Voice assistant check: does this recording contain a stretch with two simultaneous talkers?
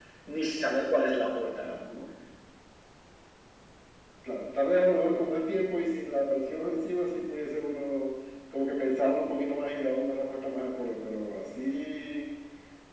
No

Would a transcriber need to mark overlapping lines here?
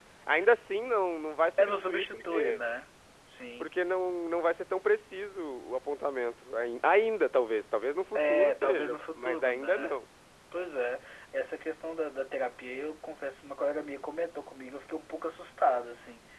Yes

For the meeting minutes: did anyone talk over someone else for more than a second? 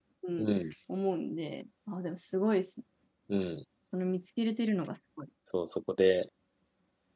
No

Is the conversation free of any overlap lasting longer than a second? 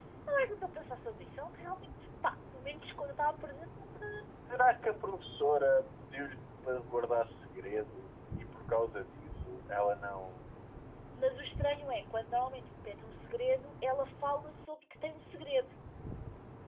Yes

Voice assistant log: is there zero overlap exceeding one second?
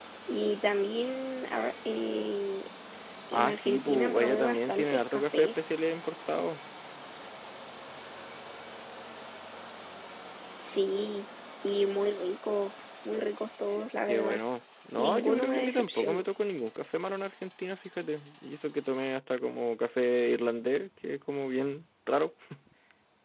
No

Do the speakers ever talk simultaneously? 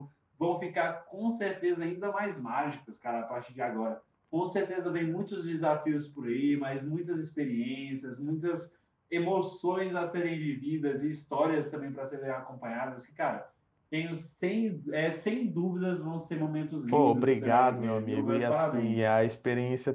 Yes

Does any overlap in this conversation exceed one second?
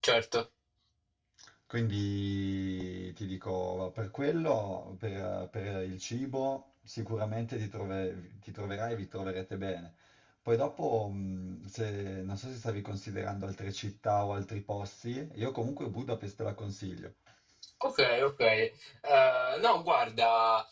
No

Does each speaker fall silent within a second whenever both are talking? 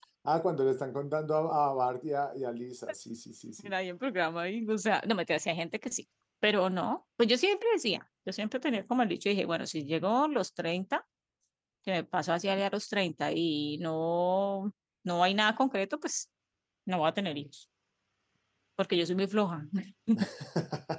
Yes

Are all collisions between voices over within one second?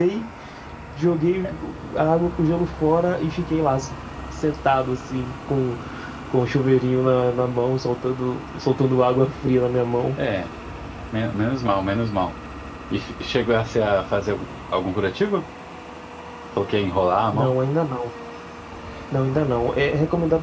Yes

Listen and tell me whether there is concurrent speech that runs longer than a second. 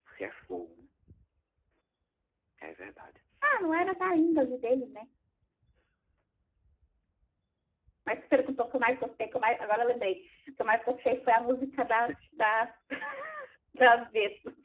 No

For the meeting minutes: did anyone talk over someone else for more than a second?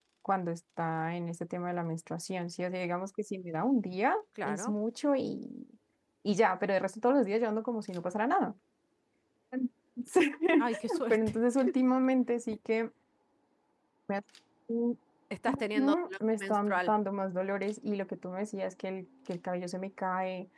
Yes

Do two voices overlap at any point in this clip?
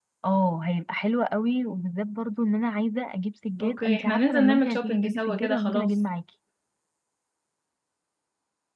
Yes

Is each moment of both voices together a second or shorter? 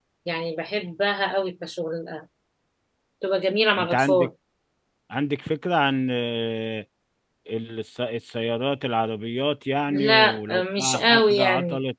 No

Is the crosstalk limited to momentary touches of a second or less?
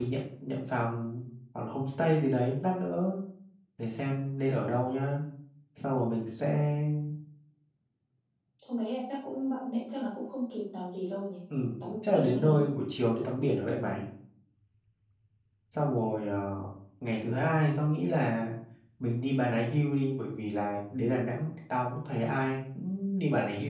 Yes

